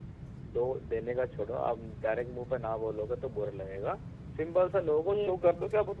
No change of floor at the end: Yes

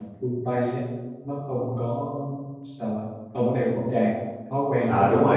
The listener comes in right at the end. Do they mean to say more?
Yes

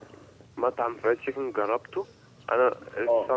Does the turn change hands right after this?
No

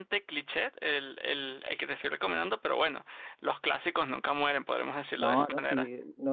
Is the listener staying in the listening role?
No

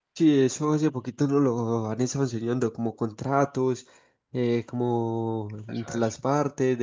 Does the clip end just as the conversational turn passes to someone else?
No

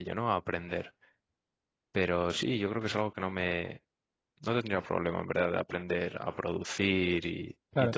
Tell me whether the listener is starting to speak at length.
Yes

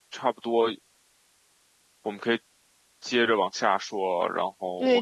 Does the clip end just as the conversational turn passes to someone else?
Yes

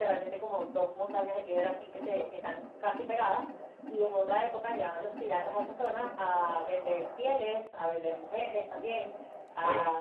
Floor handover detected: No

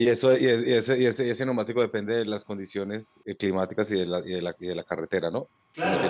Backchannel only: No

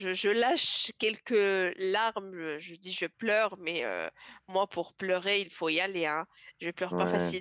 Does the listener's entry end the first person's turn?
No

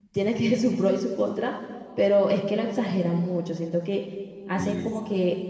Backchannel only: Yes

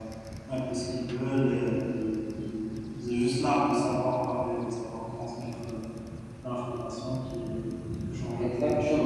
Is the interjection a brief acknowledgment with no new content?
No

